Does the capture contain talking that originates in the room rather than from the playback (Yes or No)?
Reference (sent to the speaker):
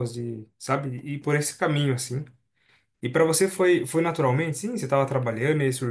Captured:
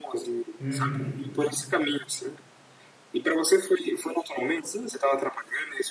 Yes